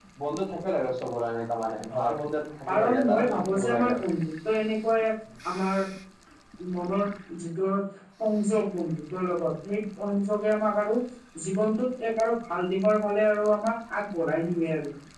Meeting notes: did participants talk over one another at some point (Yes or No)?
Yes